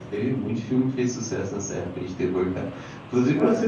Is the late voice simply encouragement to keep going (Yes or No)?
Yes